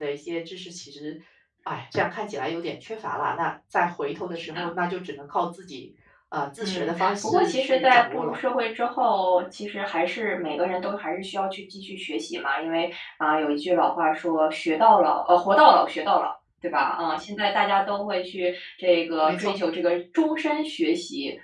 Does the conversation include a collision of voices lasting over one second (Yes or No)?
Yes